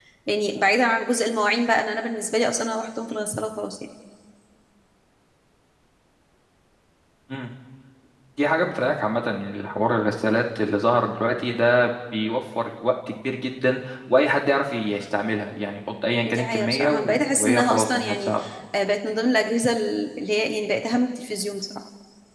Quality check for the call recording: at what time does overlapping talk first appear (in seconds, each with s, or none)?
16.2 s